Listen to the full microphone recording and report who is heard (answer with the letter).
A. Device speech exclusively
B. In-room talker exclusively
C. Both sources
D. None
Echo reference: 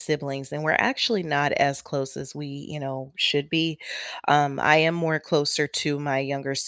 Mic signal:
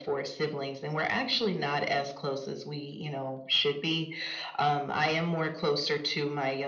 A